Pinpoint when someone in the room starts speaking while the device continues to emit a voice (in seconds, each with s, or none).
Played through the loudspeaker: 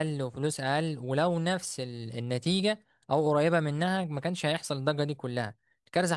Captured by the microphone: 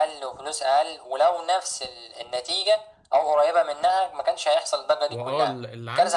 5.1 s